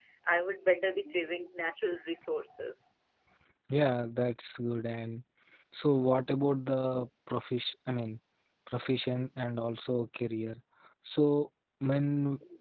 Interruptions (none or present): none